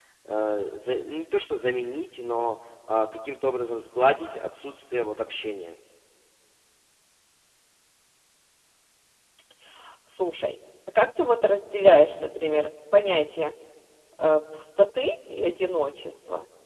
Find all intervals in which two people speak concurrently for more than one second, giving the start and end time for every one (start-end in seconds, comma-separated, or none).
none